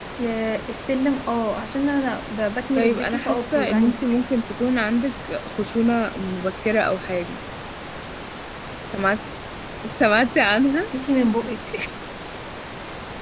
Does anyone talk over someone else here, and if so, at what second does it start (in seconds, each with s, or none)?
2.7 s